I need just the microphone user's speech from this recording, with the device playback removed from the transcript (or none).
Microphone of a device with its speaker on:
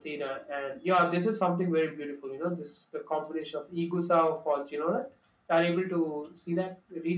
none